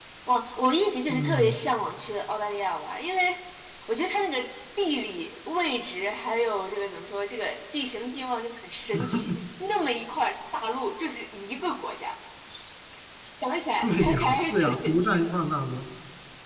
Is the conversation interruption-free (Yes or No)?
No